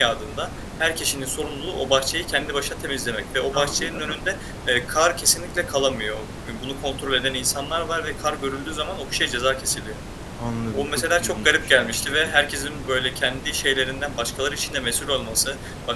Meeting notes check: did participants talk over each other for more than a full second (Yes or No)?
Yes